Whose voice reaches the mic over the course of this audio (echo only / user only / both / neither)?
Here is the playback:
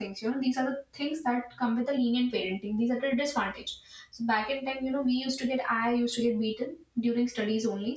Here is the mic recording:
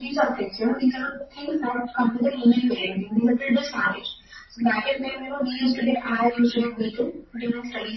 echo only